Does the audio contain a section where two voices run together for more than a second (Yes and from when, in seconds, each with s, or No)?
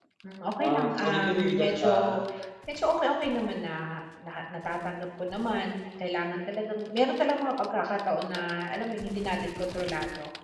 Yes, from 0.6 s